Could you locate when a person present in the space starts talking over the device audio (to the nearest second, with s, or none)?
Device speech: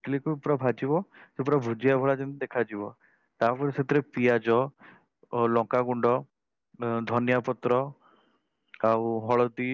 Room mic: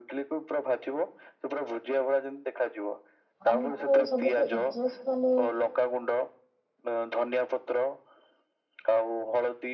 3 s